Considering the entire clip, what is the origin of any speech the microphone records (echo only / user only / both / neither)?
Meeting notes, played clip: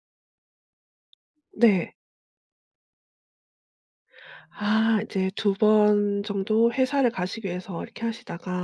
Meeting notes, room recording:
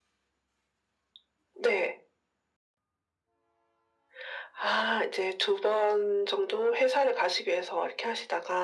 echo only